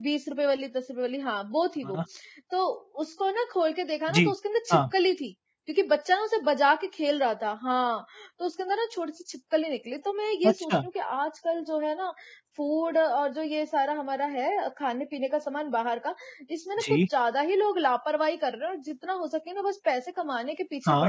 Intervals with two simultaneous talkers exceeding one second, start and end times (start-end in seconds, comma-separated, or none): none